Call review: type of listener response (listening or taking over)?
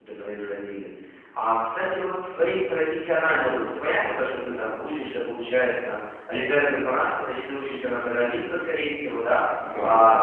listening